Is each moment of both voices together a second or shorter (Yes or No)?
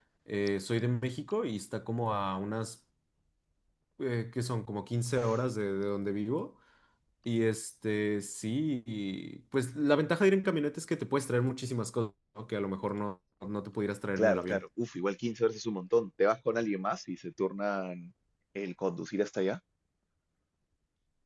Yes